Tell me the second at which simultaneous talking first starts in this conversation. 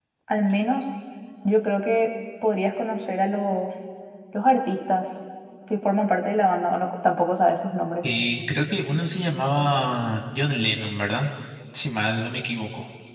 none

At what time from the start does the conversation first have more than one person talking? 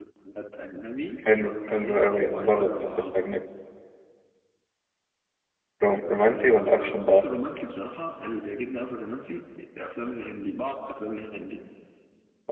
1.4 s

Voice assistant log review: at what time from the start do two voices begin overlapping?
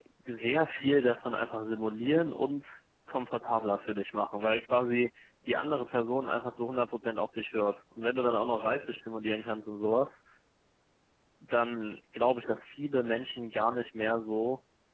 none

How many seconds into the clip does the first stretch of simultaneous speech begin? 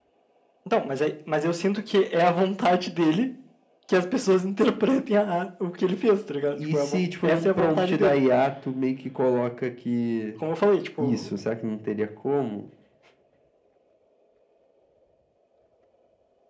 6.7 s

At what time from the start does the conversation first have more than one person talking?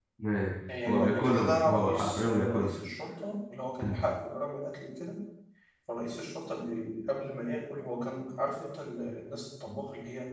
0.9 s

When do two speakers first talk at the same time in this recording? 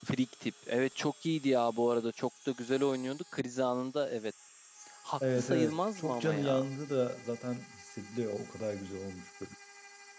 5.3 s

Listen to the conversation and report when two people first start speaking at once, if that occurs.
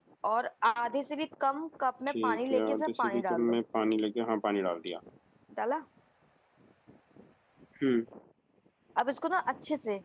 2.1 s

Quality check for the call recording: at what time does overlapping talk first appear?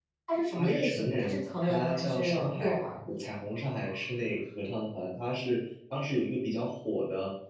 0.6 s

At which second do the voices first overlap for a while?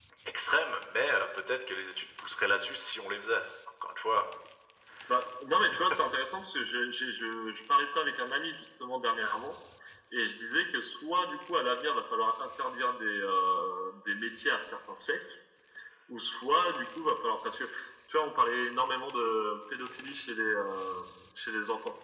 none

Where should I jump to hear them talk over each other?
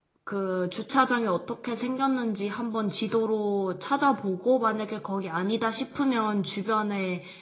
none

